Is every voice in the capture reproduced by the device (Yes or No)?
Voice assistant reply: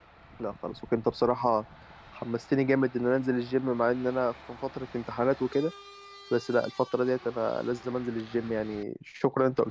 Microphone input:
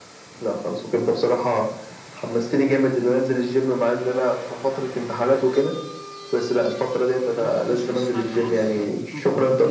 No